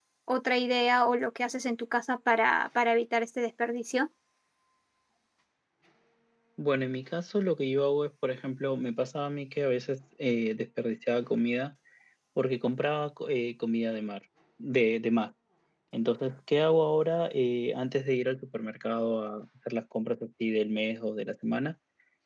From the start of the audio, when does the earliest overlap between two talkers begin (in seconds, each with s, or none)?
none